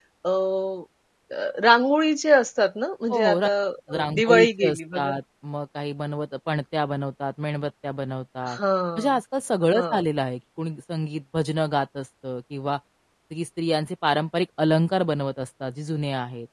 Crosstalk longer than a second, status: present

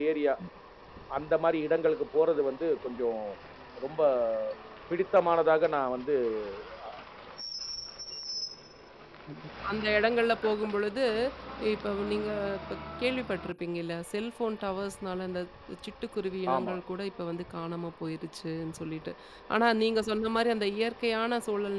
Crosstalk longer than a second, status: none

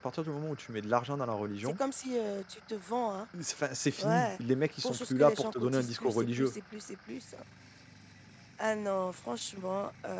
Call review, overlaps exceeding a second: present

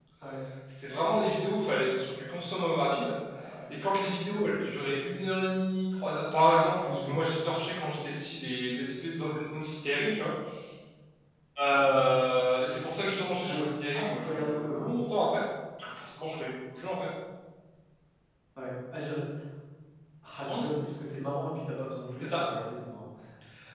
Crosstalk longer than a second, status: present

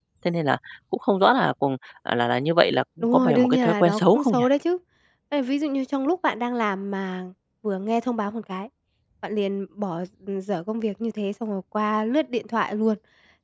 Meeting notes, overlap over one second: present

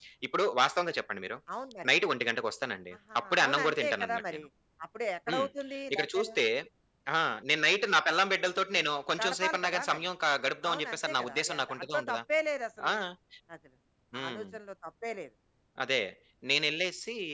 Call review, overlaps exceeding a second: present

